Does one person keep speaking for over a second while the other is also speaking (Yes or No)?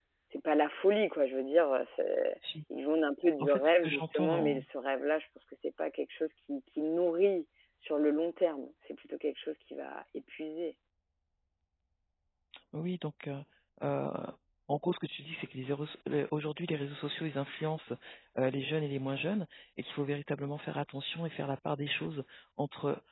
Yes